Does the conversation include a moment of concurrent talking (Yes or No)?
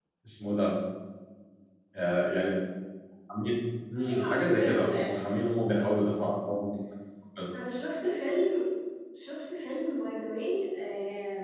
Yes